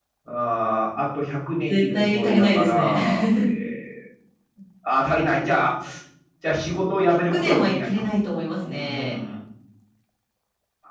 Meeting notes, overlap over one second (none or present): present